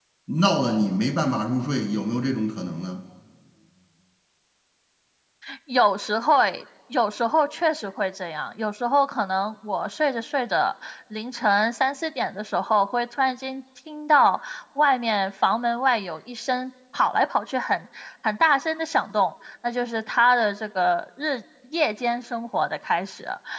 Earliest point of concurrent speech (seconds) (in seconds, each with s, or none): none